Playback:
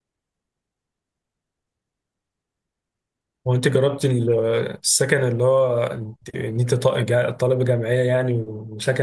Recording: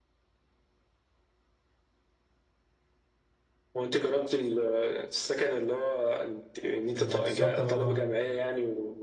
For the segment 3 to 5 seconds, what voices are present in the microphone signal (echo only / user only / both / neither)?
echo only